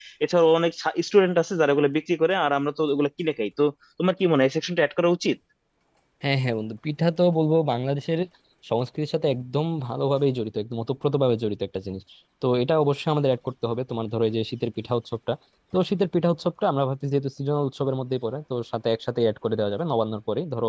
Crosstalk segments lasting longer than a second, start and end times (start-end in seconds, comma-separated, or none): none